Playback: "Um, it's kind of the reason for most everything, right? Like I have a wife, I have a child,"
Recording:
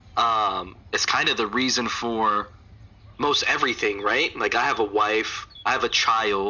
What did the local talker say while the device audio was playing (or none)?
none